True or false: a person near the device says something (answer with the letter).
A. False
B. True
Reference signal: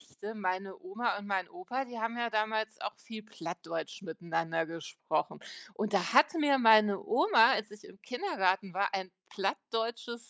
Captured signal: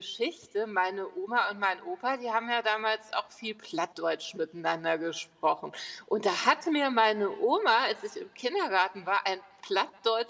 A